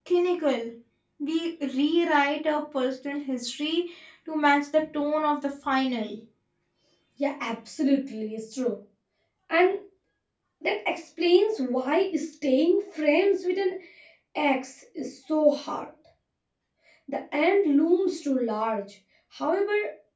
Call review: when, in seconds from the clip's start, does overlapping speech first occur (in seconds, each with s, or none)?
none